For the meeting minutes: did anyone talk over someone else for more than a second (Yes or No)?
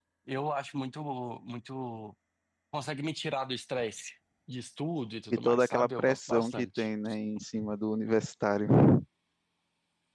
Yes